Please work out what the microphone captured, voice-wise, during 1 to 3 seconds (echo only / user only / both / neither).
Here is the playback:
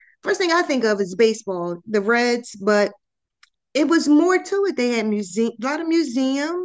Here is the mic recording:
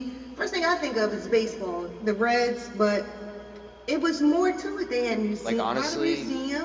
echo only